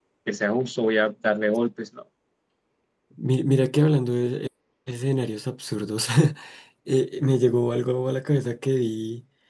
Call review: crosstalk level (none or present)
none